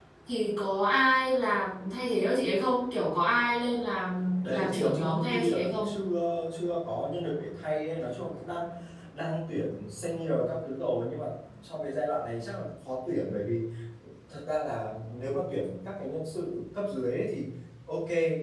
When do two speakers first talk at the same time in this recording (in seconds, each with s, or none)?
4.4 s